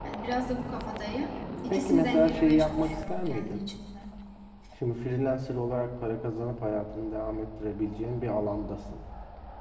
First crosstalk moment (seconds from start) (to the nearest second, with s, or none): 2 s